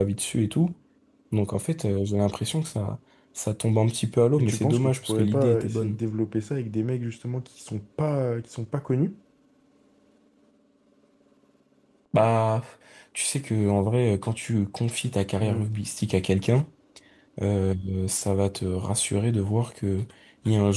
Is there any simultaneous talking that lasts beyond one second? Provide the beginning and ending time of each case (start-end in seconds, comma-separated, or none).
4.4-6.0